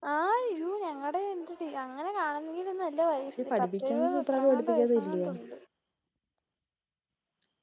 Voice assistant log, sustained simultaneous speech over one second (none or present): present